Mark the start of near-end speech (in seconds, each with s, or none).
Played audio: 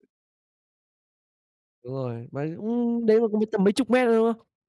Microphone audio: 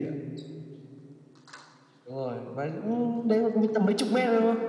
none